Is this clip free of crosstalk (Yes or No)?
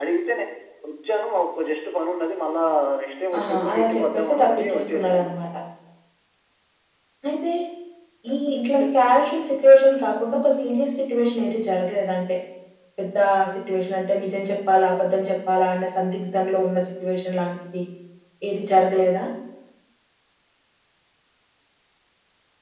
No